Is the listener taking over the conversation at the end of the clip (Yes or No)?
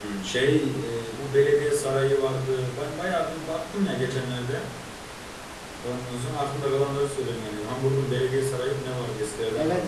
Yes